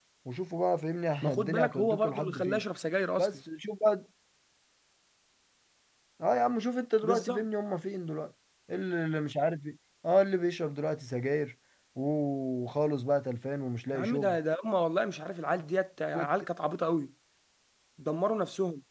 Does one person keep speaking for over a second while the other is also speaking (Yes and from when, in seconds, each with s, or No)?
Yes, from 1.2 s